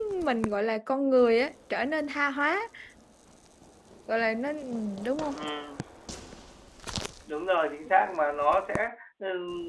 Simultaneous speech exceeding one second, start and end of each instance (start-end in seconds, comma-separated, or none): none